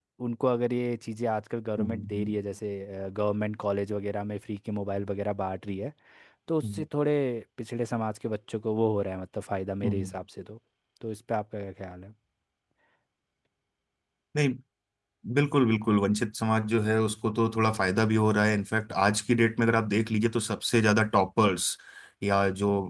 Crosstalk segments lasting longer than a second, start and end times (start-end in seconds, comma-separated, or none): none